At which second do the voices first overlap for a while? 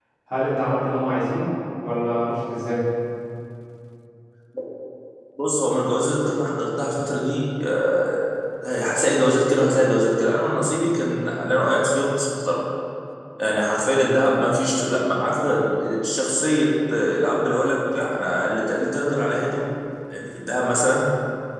none

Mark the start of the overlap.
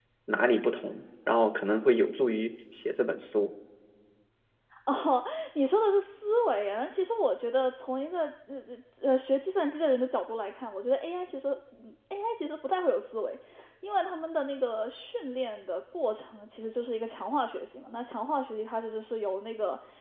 none

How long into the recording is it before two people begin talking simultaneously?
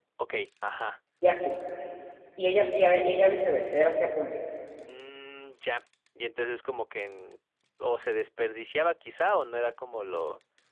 none

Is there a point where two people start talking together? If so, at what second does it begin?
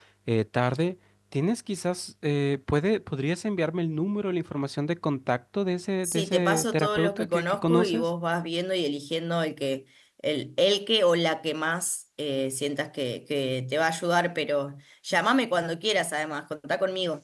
6 s

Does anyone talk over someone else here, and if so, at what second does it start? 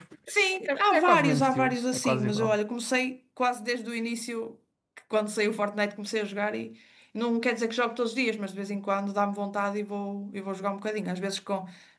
1 s

